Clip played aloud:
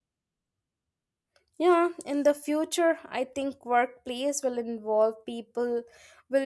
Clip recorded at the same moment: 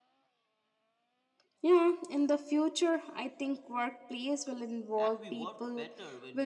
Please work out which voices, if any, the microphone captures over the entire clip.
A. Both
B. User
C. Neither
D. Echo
A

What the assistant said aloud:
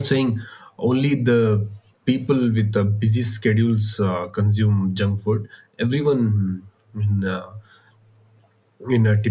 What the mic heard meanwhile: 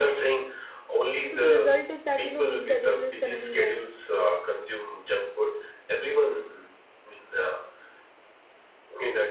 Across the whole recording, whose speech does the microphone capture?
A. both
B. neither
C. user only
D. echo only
A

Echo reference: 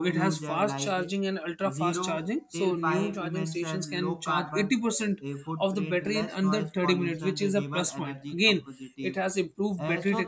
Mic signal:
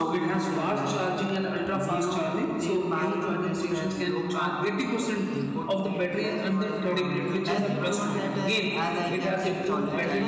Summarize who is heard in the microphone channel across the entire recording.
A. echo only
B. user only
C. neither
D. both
D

